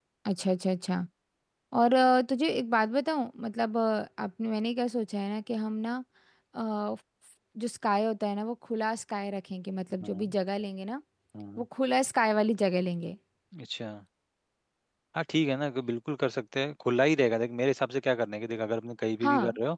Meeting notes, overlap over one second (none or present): none